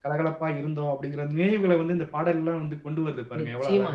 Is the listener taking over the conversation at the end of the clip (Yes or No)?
Yes